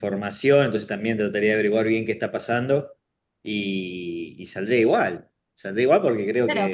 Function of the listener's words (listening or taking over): taking over